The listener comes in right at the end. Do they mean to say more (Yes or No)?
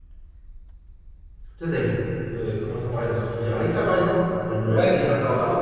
Yes